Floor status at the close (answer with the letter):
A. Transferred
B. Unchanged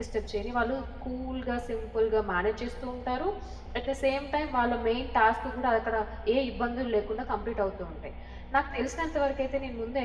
B